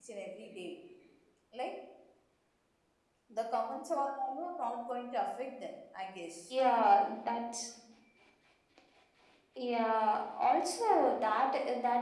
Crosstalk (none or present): none